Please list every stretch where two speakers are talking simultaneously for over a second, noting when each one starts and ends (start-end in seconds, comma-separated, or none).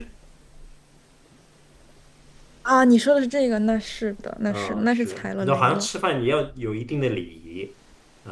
4.5-5.9